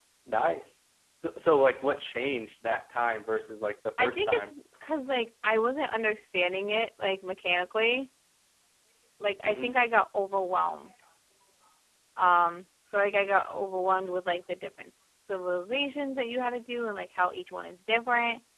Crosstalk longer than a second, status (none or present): none